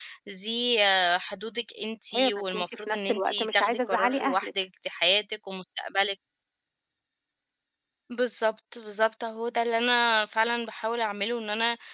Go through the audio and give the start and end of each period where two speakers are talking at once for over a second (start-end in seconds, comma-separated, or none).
2.2-4.5